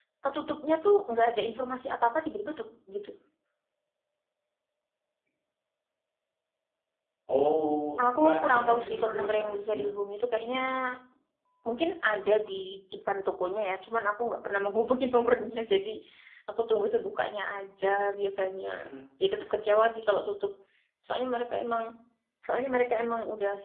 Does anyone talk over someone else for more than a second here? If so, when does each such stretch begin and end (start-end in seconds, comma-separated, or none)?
8.0-9.9